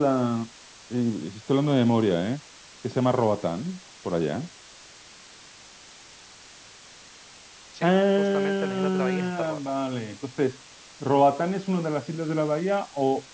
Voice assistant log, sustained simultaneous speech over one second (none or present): present